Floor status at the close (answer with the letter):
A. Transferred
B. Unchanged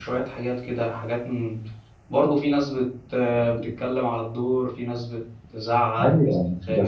A